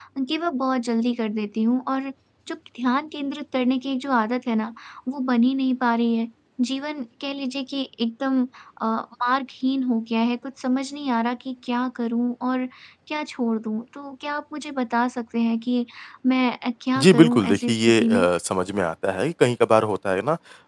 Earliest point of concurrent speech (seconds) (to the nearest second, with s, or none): 17 s